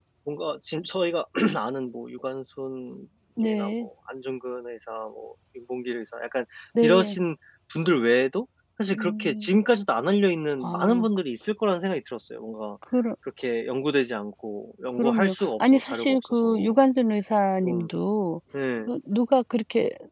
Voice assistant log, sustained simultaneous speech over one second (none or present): present